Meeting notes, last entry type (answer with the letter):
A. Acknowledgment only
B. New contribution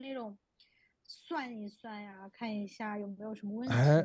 B